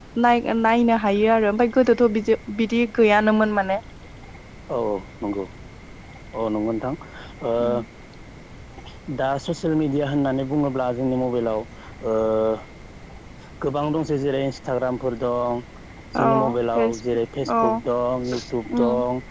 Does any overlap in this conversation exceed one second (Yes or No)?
No